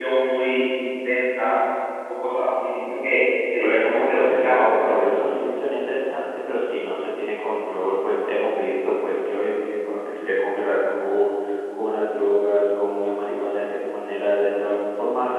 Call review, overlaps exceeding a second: present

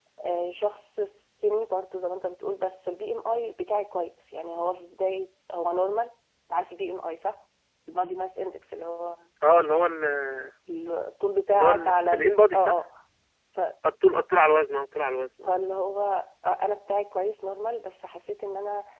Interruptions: present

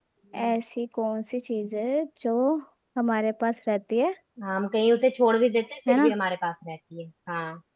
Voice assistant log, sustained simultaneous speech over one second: none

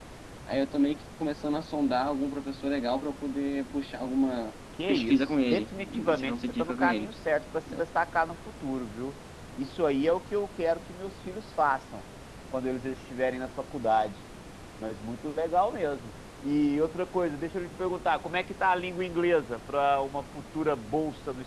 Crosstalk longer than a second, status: present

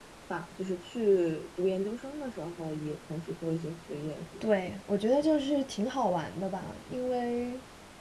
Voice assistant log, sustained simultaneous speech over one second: none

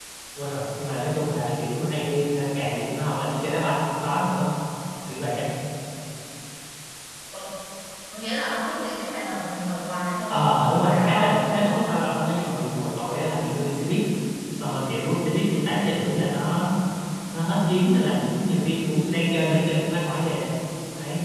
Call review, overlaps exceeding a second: present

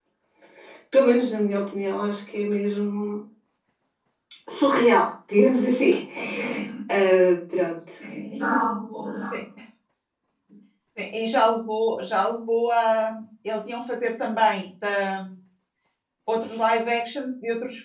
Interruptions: none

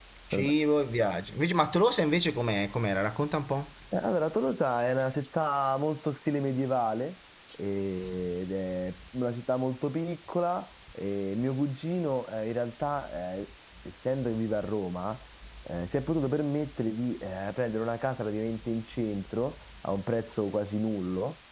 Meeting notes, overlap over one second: none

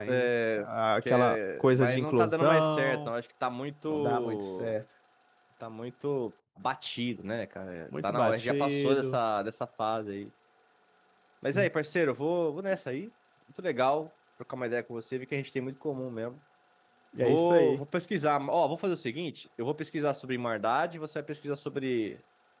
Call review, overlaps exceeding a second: present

